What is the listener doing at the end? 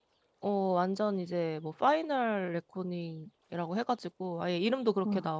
listening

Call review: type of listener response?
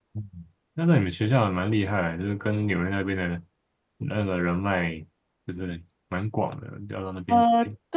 taking over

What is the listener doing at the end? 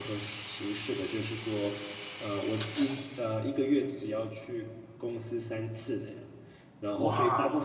listening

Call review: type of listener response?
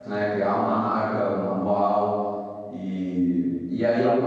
listening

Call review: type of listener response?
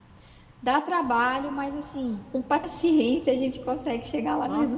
taking over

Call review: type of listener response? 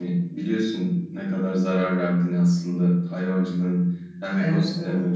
listening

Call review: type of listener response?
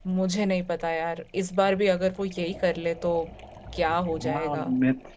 taking over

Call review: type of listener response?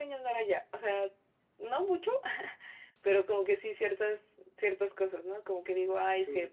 listening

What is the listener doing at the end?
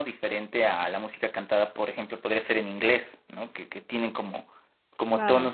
listening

